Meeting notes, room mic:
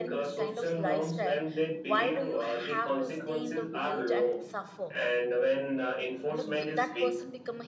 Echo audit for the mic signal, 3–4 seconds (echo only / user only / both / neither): both